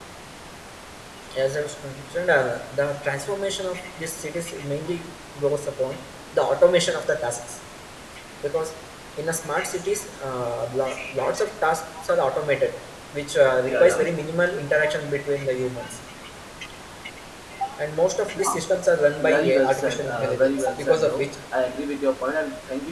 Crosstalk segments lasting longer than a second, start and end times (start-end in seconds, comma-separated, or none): 19.2-21.2